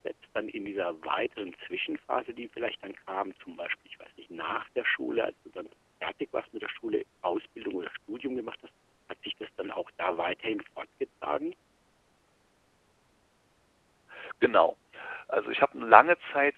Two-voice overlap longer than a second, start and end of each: none

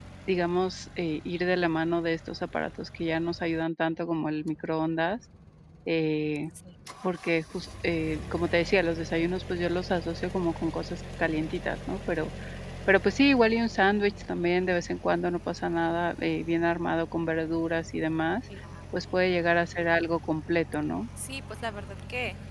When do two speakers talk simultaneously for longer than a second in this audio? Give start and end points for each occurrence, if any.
none

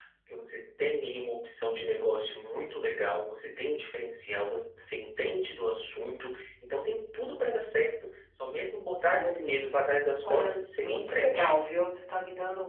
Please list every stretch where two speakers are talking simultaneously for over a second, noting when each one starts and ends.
10.2-11.5

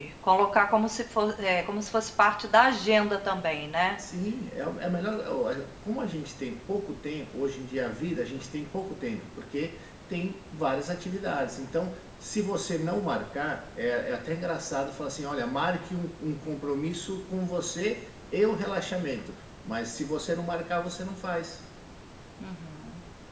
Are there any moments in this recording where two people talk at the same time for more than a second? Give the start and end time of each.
none

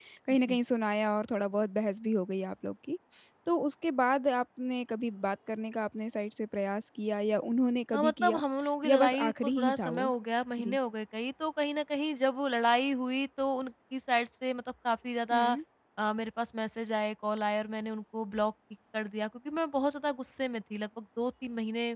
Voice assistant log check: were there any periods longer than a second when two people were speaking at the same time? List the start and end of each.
8.8-10.1

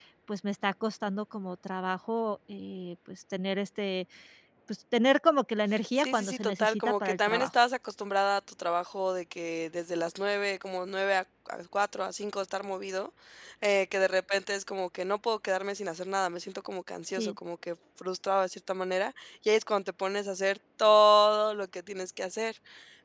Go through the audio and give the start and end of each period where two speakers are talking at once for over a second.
6.0-7.5

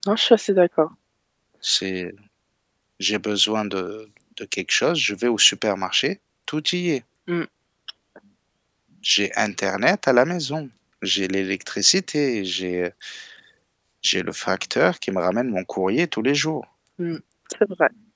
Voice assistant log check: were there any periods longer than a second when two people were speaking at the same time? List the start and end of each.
none

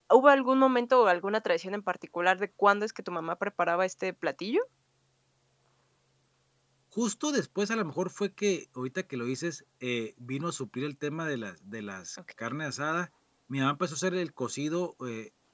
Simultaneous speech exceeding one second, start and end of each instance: none

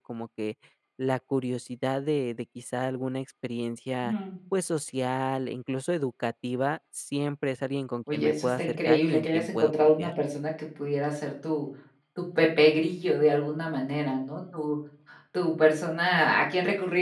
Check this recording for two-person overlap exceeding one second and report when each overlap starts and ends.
8.1-10.1

